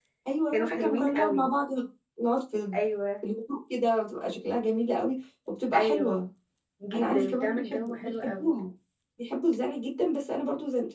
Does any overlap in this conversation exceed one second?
Yes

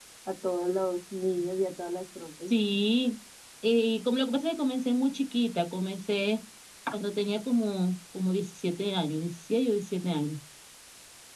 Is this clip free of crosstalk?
Yes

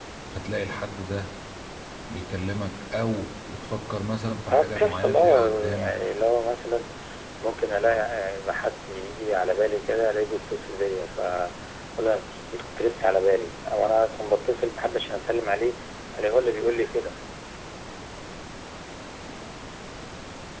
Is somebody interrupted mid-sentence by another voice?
Yes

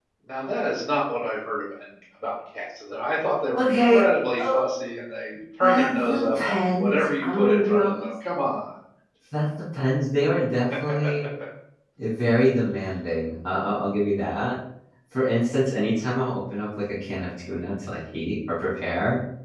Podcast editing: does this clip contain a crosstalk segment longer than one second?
Yes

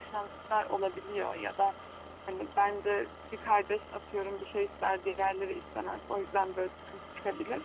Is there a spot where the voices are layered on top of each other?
No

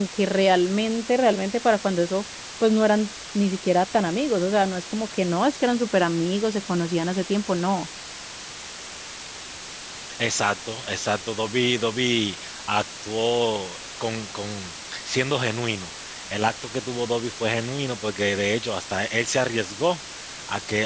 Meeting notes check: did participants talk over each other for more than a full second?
No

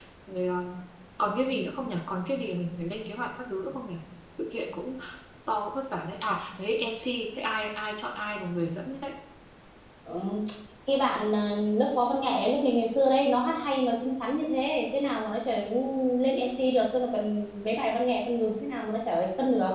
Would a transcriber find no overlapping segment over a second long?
Yes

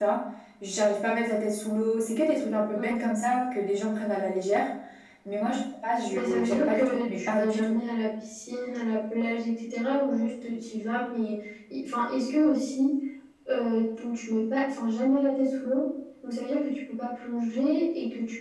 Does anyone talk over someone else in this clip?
Yes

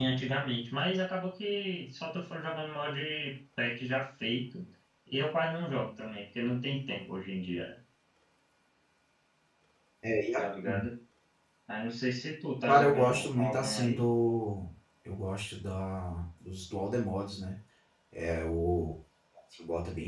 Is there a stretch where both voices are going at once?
Yes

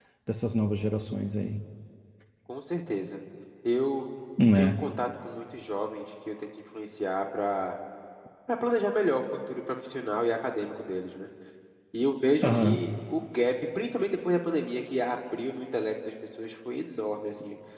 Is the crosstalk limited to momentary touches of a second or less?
Yes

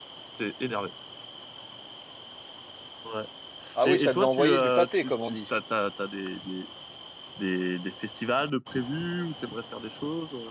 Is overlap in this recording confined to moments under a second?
No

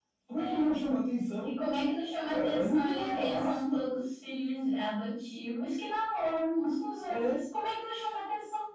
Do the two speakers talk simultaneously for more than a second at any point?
Yes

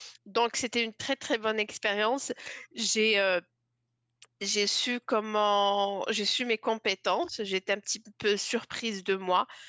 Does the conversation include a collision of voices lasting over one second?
No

